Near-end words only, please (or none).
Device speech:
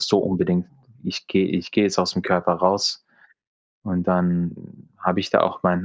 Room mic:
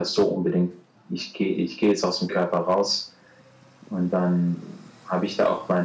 none